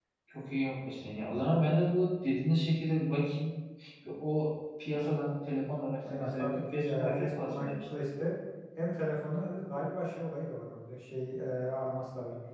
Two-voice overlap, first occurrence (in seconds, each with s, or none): 6.0 s